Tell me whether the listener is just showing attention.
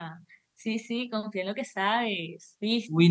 No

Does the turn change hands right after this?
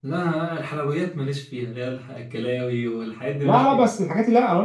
Yes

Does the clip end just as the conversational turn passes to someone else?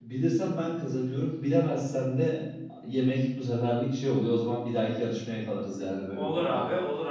Yes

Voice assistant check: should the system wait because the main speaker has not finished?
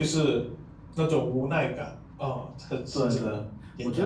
No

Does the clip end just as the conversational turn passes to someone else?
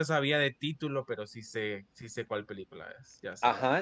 Yes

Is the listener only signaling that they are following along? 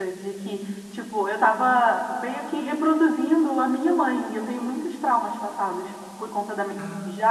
Yes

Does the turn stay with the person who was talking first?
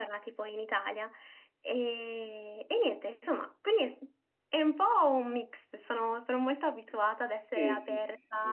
No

